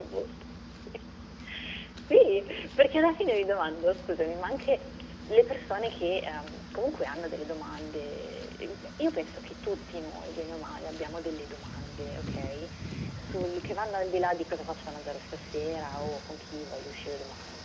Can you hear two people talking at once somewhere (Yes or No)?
No